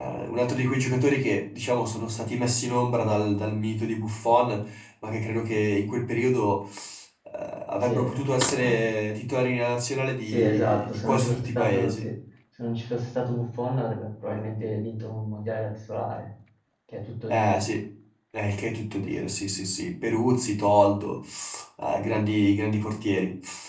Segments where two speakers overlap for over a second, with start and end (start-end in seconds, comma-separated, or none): 10.3-12.1